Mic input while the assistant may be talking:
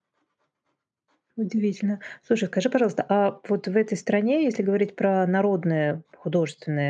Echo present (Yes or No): No